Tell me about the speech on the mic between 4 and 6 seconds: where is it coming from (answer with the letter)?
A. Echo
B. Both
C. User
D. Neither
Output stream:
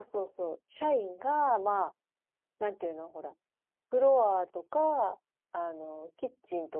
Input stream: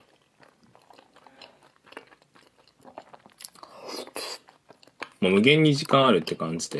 C